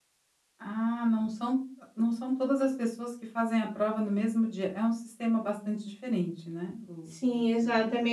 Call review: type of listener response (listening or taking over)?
taking over